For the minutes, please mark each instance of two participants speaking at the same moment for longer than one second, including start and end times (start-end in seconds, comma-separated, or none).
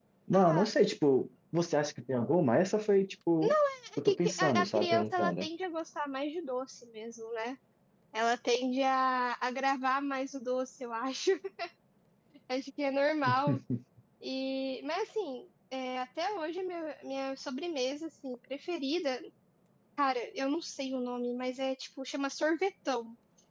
4.0-5.5